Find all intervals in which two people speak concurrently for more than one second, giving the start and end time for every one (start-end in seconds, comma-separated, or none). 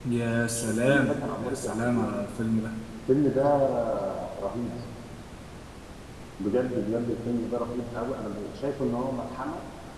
0.7-2.1